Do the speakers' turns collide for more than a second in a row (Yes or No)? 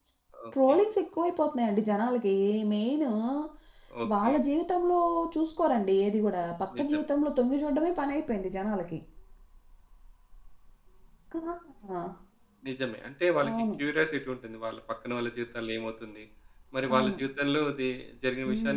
No